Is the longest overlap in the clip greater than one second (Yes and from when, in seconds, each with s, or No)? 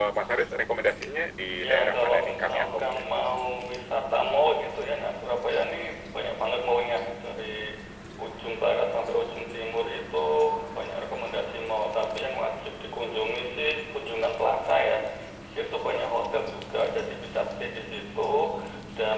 Yes, from 1.6 s